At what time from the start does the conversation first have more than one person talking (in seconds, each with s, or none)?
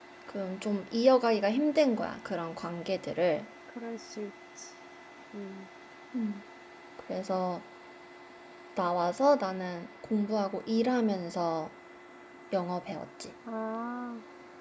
none